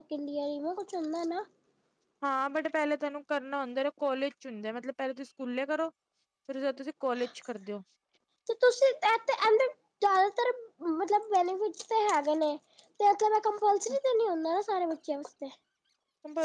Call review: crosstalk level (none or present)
none